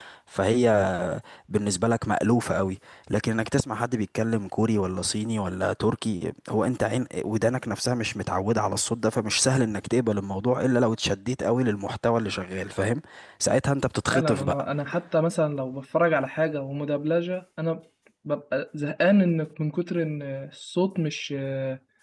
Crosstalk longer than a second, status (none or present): none